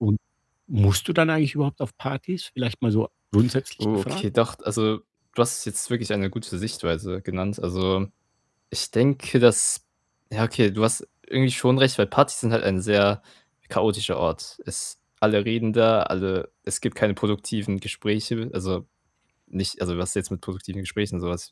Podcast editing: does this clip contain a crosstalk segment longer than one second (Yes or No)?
No